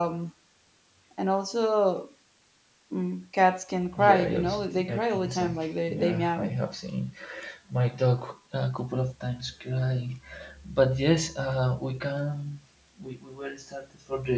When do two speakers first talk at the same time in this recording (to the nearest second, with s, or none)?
4 s